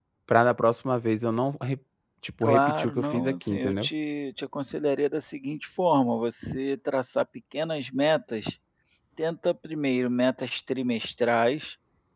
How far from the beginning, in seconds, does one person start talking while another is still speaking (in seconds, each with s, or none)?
2.4 s